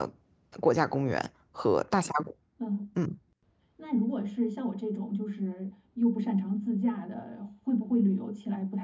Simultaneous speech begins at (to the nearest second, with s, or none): none